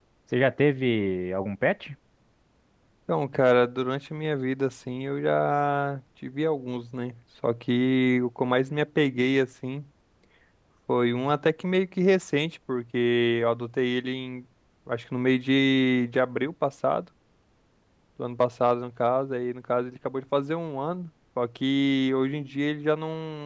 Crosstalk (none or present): none